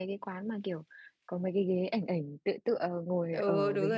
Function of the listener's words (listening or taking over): taking over